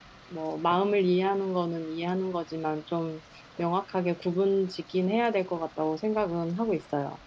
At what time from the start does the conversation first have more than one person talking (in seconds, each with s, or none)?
none